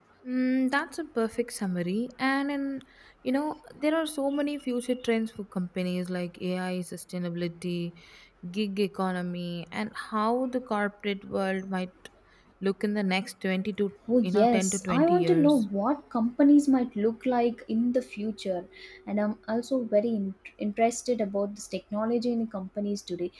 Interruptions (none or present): present